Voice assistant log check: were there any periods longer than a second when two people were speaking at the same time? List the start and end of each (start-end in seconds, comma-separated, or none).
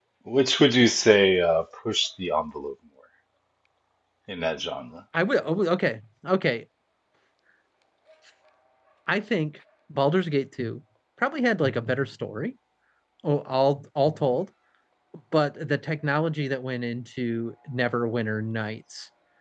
none